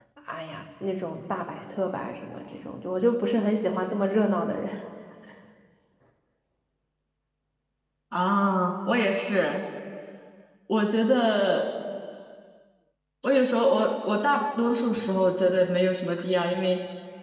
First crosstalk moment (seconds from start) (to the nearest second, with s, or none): none